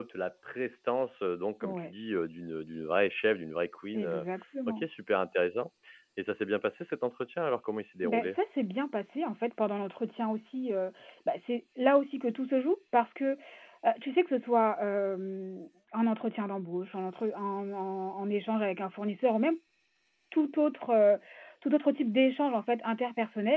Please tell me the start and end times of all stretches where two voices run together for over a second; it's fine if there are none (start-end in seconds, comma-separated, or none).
none